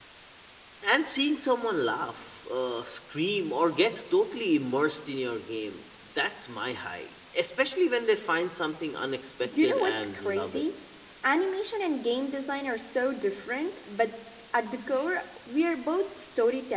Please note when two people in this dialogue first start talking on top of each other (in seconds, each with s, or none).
9.4 s